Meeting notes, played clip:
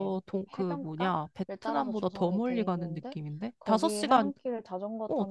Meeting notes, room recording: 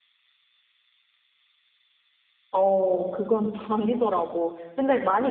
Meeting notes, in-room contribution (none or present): present